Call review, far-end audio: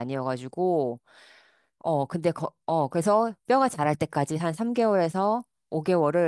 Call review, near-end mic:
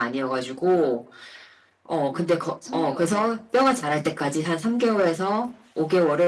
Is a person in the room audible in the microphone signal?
Yes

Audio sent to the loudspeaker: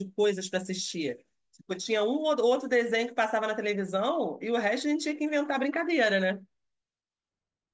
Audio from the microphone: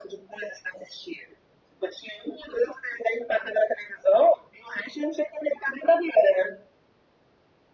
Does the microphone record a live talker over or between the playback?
No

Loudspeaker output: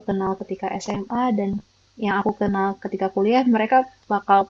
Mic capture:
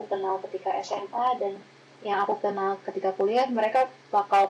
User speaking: No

